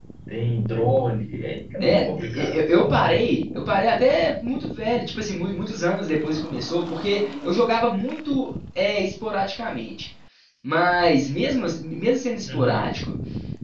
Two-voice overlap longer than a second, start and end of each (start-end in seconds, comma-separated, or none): 1.8-3.1